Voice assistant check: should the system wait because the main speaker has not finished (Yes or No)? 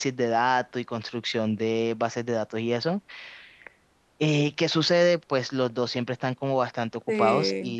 Yes